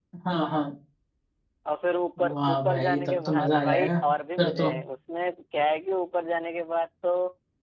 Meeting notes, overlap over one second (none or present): present